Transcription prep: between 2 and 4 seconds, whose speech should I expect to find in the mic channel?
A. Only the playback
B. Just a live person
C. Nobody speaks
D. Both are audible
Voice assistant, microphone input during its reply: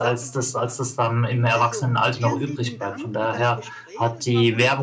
D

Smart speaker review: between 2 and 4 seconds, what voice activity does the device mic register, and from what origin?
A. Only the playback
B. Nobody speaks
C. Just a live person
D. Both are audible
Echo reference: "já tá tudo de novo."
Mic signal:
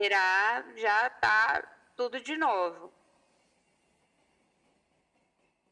A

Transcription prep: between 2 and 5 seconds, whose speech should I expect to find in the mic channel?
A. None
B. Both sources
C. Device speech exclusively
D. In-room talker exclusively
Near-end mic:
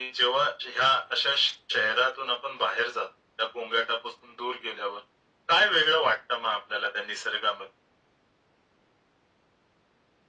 C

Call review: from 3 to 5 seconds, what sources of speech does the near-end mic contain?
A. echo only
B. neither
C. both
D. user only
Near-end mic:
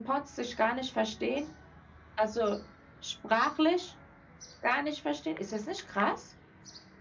A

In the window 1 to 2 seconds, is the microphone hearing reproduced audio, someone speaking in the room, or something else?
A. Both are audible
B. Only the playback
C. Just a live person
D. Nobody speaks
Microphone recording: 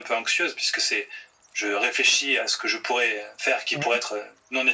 B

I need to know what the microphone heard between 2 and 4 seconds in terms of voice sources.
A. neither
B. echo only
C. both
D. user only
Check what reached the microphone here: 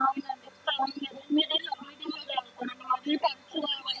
B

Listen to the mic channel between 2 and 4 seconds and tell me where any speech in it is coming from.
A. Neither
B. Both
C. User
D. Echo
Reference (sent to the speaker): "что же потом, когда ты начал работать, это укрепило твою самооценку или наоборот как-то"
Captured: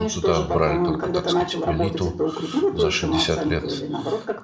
B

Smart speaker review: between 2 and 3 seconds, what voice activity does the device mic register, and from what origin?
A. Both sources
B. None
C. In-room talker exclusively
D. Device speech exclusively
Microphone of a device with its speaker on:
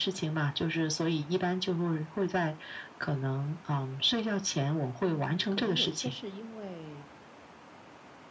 D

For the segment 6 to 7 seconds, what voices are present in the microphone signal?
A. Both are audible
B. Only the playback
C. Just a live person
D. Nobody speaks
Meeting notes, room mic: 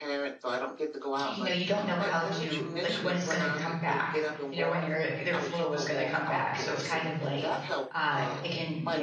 A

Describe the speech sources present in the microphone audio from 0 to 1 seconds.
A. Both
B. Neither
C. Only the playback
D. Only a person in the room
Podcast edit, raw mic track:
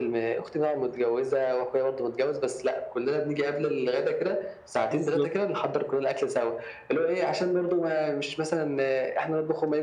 C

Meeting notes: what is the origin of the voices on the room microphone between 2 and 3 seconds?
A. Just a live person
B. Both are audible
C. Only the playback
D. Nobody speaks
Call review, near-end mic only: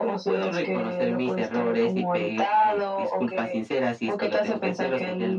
C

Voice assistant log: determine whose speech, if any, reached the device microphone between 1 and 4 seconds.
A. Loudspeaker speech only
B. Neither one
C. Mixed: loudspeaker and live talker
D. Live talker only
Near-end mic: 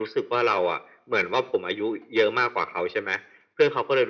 A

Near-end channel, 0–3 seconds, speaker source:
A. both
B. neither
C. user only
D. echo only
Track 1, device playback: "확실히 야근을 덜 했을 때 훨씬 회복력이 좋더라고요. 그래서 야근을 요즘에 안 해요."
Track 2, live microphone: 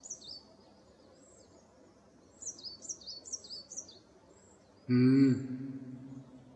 B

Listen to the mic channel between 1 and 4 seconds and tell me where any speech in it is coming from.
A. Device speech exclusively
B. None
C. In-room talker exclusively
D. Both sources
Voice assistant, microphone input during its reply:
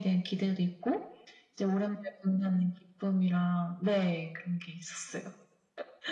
A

